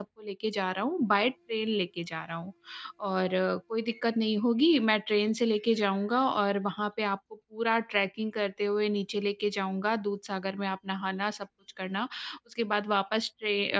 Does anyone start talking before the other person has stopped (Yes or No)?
No